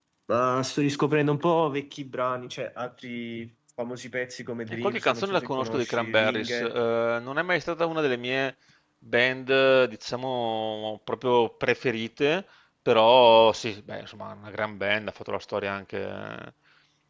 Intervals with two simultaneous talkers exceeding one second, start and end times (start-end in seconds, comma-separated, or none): 4.8-6.7